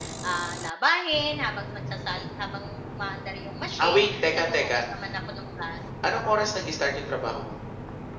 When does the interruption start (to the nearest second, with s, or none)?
3 s